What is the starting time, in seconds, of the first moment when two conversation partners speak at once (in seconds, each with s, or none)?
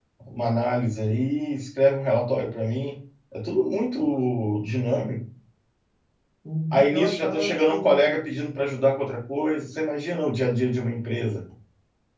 6.7 s